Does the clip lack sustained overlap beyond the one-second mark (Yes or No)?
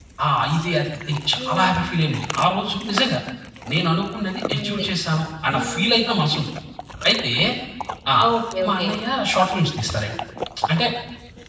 Yes